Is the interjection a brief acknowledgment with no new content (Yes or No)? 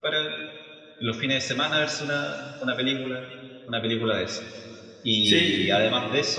Yes